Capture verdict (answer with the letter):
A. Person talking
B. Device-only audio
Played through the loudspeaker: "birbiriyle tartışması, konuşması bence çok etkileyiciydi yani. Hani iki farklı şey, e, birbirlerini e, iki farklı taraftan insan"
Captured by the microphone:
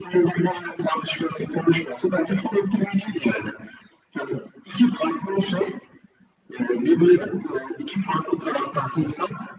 B